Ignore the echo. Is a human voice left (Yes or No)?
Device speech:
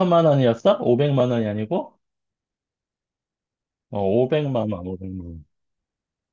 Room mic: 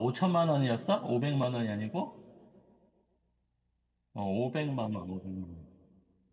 No